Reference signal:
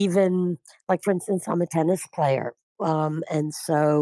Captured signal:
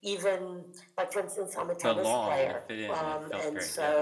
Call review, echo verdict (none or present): present